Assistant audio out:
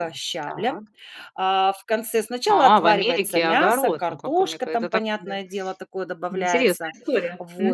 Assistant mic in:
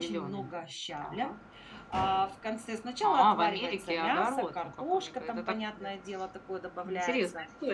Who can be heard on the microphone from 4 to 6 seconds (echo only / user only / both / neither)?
echo only